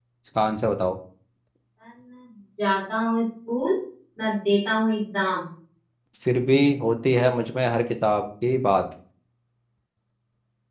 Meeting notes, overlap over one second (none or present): none